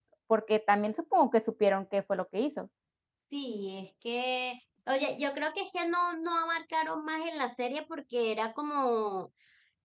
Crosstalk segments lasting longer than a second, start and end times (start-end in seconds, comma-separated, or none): none